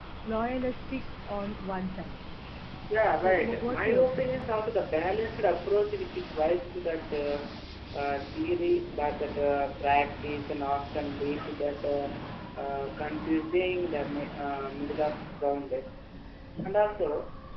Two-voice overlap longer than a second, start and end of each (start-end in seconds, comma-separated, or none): 3.1-4.4